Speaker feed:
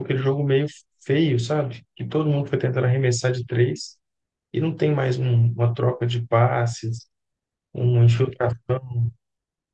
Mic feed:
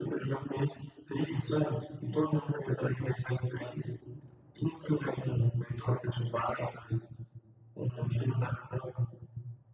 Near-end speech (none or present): none